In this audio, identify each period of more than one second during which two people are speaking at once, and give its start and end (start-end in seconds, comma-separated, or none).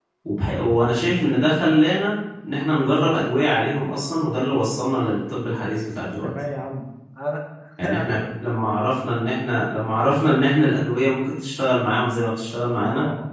none